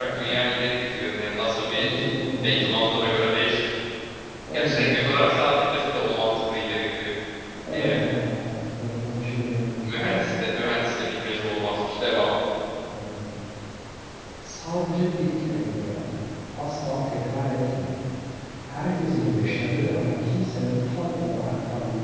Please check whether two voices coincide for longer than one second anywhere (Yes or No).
Yes